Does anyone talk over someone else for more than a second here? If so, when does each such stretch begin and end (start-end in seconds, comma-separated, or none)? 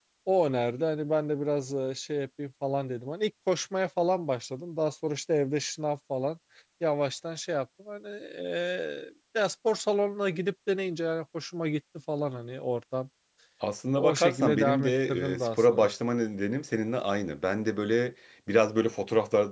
14.0-15.9